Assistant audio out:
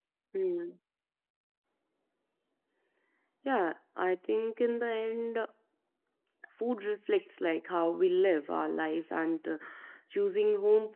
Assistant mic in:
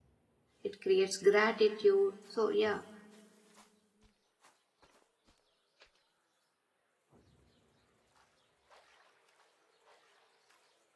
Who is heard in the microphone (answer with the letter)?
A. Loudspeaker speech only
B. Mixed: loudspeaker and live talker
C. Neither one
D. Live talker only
D